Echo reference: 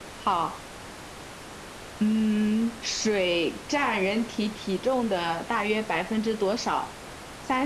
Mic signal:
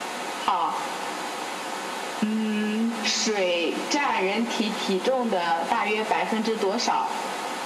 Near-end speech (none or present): none